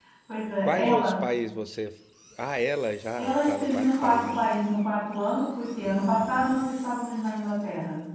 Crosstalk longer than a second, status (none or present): present